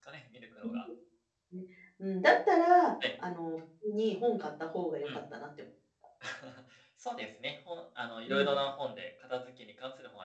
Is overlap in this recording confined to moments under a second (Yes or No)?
Yes